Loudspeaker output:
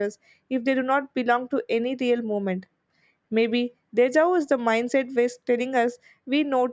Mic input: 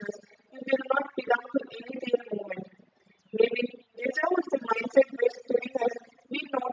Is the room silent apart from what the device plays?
Yes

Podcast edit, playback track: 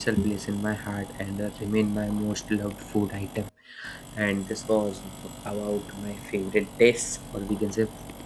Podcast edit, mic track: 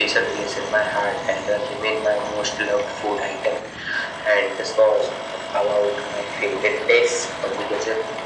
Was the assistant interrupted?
No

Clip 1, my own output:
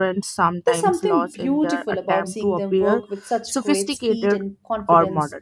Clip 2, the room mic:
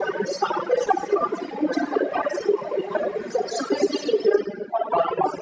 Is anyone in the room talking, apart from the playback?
No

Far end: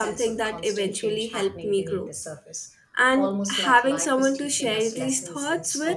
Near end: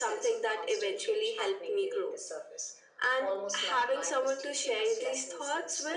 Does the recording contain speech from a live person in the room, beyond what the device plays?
No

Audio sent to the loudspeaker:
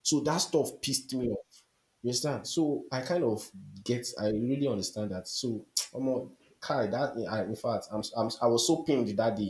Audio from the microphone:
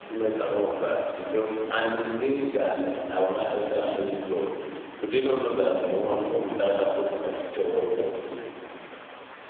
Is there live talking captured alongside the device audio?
Yes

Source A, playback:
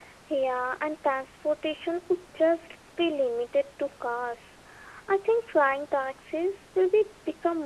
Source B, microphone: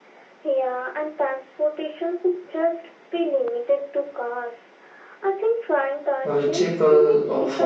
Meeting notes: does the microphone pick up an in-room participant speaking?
Yes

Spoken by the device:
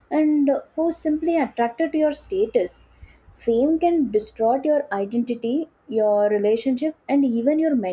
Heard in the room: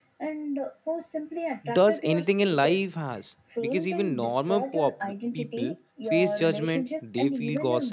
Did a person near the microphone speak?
Yes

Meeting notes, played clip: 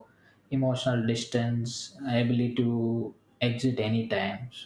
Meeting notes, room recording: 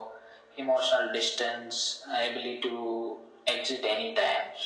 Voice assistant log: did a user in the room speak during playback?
No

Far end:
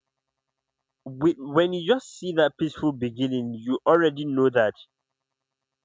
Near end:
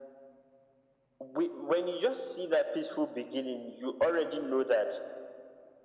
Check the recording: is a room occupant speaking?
No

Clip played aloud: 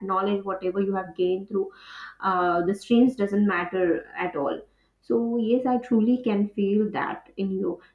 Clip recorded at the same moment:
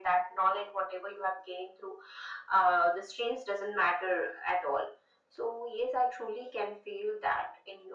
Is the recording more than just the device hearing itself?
No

